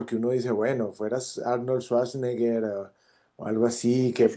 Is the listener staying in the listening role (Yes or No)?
No